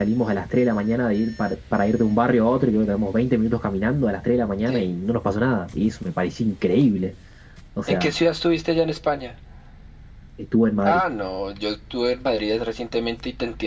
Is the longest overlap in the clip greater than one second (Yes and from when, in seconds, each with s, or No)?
No